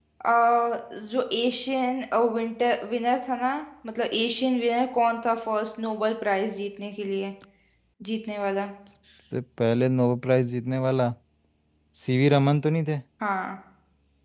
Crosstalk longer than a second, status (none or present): none